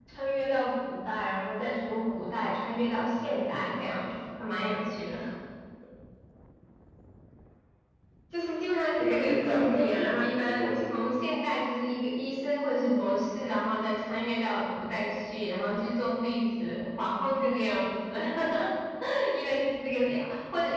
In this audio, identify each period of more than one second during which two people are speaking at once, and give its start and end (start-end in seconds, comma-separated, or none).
8.9-11.1